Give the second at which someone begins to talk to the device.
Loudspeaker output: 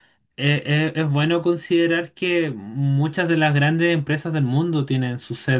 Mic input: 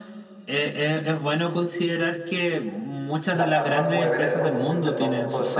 3.3 s

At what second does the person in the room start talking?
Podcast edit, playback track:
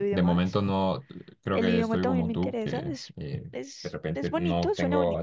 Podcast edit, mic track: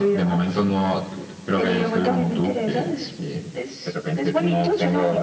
none

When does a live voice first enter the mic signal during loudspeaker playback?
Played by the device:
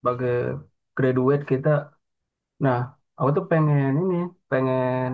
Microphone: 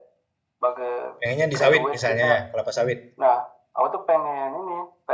1.2 s

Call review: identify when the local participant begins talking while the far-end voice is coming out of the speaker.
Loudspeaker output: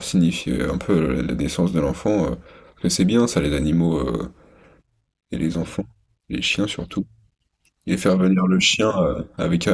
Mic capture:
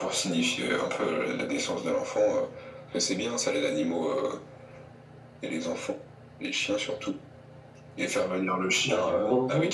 8.8 s

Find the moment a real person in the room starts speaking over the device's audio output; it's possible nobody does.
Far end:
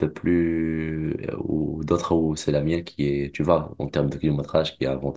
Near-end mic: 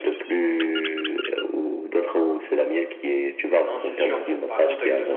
3.6 s

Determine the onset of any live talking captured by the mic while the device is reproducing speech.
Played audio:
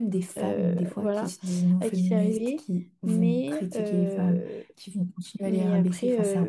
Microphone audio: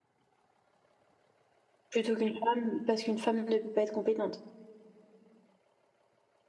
1.9 s

